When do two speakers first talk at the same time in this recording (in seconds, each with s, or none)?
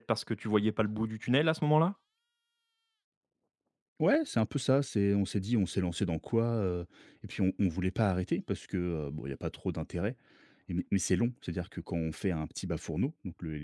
none